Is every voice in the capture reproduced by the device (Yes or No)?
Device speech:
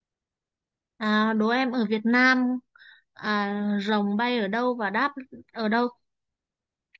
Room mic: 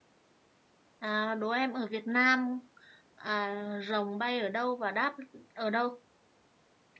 Yes